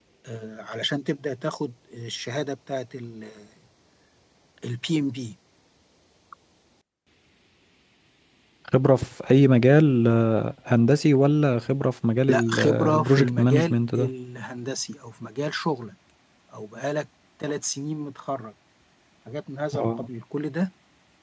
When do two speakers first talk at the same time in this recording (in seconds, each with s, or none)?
12.3 s